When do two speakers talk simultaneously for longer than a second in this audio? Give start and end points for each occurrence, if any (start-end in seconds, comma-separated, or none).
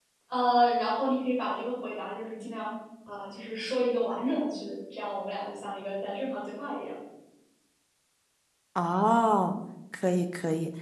none